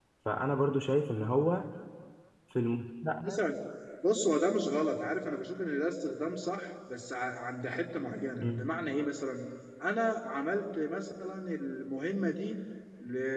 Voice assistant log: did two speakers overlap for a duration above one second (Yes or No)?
No